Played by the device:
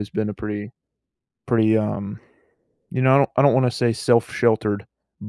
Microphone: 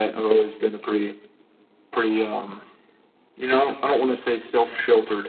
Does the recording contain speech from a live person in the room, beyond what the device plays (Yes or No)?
No